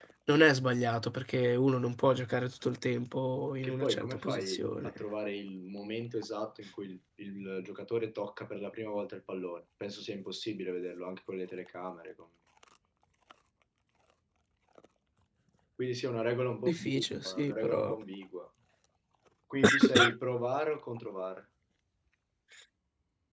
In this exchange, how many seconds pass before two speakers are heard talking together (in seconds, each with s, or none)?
3.6 s